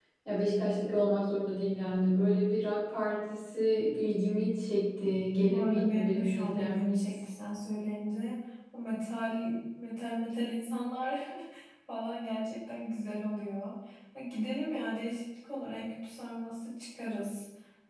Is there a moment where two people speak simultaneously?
Yes, from 5.5 s

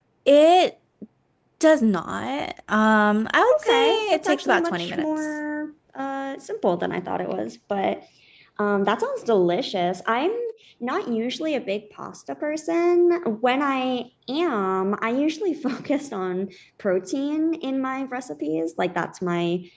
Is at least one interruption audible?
Yes, from 3.5 s

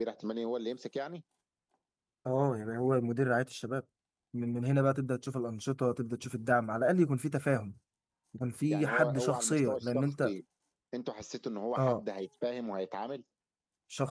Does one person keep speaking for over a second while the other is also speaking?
Yes, from 8.7 s

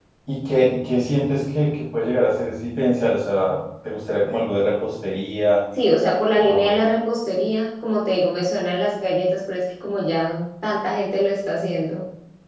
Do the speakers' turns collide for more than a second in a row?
No

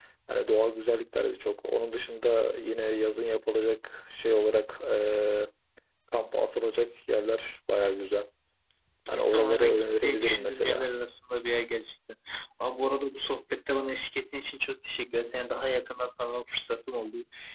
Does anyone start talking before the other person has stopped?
Yes, from 9.1 s

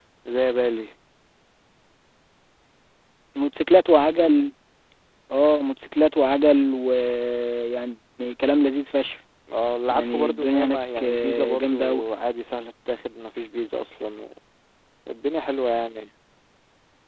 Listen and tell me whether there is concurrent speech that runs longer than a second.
Yes, from 9.9 s

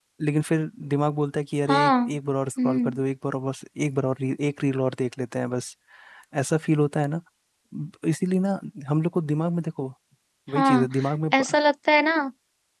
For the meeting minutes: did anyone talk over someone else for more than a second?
No

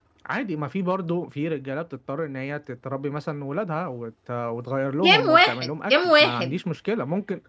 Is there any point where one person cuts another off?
Yes, from 5.0 s

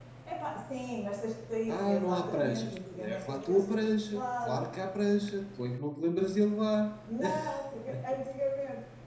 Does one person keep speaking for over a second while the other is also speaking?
Yes, from 1.7 s

